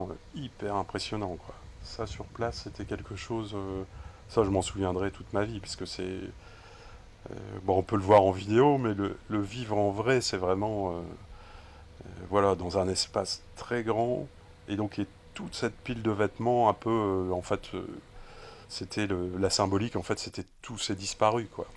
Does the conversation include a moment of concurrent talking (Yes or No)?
No